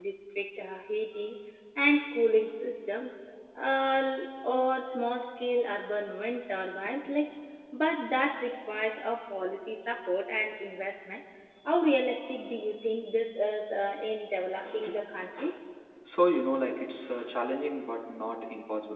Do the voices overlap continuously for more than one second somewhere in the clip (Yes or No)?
No